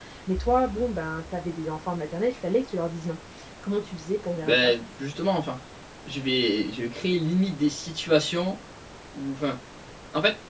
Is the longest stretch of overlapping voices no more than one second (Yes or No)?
Yes